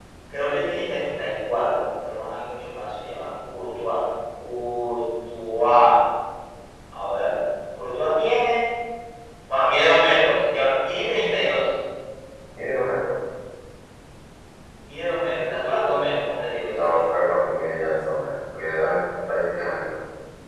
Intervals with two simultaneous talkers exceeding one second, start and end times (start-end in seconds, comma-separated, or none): none